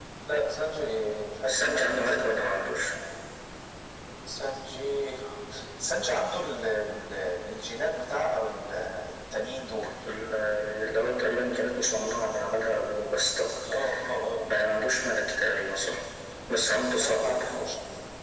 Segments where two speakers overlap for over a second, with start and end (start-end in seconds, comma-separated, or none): 1.5-2.7